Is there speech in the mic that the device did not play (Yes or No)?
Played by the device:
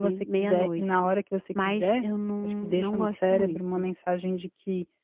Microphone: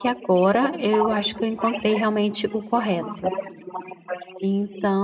Yes